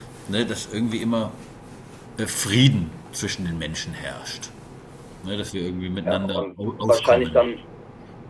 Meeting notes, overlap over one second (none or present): present